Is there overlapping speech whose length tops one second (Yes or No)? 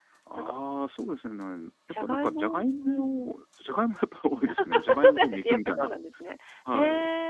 Yes